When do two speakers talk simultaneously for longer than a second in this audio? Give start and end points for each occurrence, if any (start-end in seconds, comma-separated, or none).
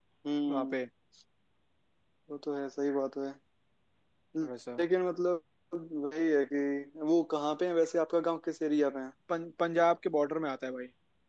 none